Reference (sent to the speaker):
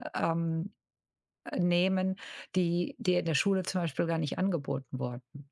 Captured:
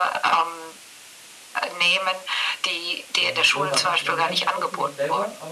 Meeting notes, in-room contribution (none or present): present